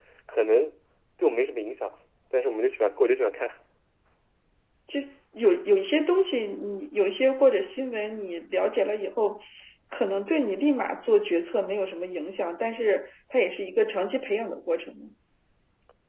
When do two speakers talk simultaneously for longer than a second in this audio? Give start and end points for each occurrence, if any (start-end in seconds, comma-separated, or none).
none